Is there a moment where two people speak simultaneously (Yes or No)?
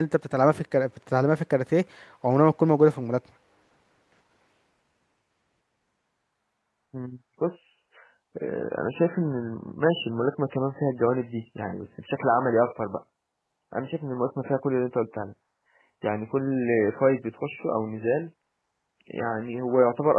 No